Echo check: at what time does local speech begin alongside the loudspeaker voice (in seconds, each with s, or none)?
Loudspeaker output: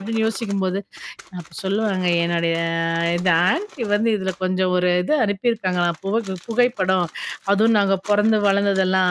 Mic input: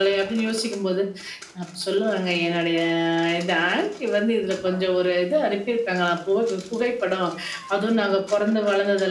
none